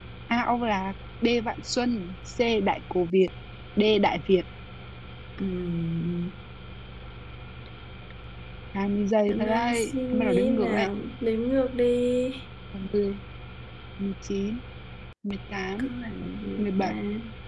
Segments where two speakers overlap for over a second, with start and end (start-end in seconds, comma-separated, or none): 9.3-10.9